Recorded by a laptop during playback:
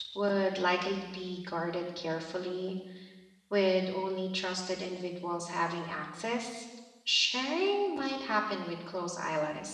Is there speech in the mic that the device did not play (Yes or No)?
Yes